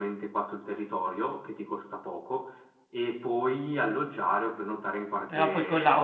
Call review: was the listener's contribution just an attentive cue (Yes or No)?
No